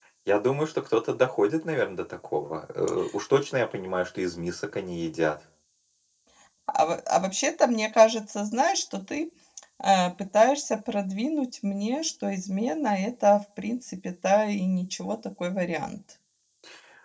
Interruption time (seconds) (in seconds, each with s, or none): none